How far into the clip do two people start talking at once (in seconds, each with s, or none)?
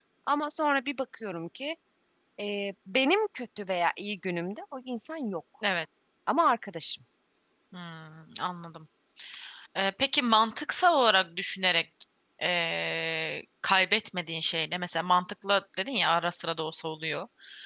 none